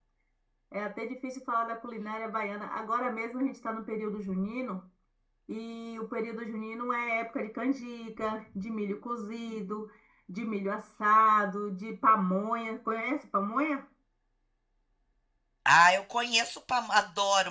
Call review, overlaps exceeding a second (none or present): none